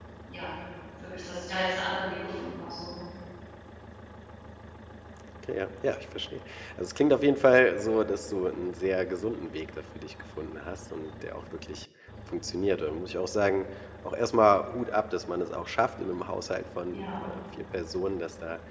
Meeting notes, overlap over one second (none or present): none